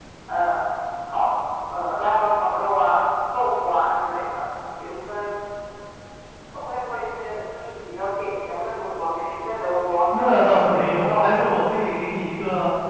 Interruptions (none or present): present